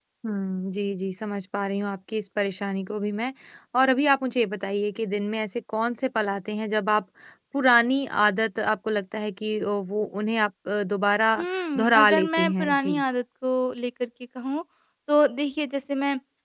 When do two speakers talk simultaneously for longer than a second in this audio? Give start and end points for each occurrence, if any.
11.8-13.0

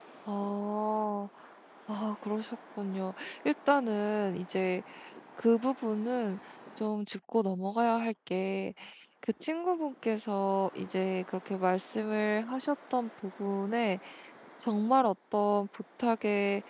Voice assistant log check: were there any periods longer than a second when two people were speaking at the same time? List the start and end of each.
none

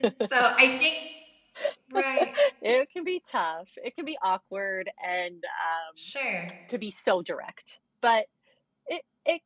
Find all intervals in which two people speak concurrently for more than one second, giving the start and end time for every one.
none

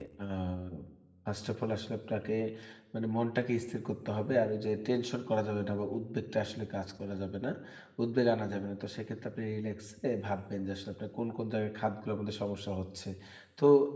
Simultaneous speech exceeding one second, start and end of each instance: none

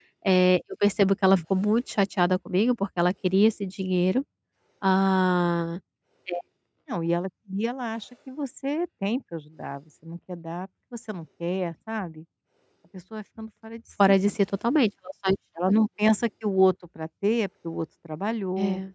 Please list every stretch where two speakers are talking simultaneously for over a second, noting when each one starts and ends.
none

